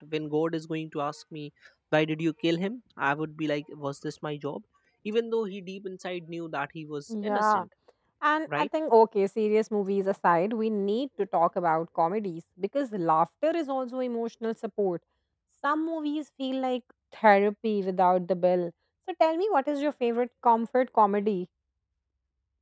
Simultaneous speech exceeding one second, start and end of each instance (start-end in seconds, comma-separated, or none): none